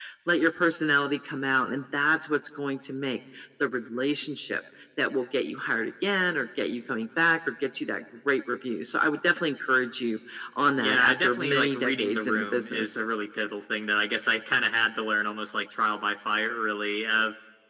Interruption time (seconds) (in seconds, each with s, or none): 10.8 s